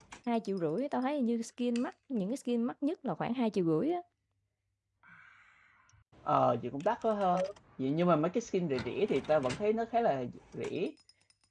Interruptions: none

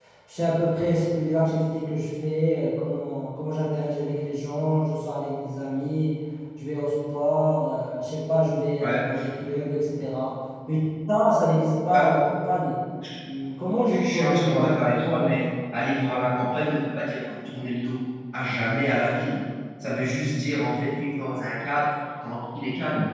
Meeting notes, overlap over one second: present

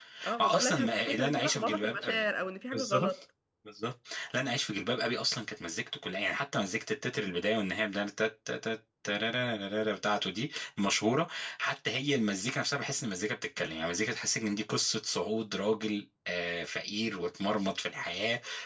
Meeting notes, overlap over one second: present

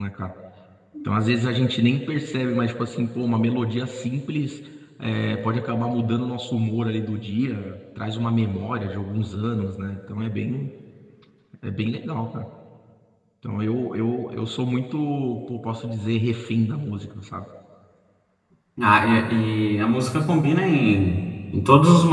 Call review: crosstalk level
none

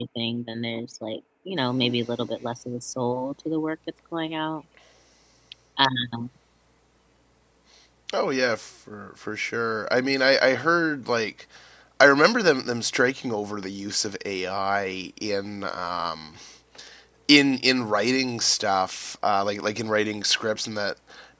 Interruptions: none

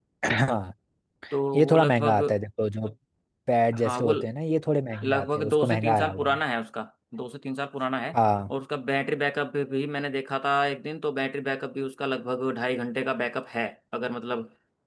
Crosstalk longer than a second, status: present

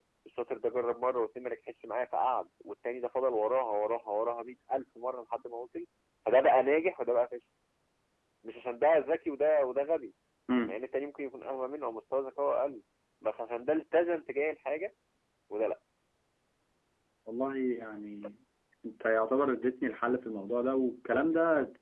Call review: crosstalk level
none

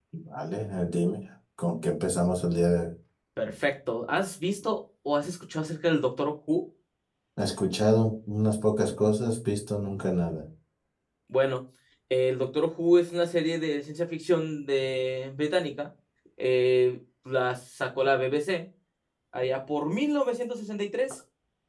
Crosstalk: none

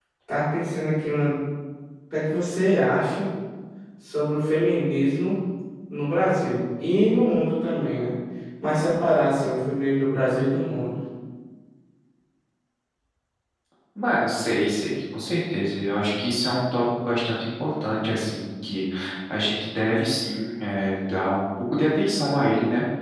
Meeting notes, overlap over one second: none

